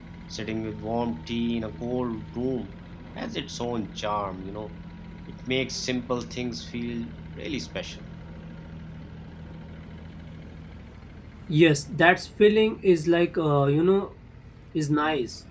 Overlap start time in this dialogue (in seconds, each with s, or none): none